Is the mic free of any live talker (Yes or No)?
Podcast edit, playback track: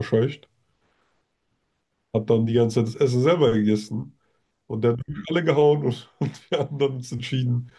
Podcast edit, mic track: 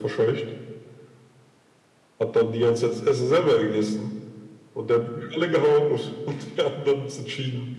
Yes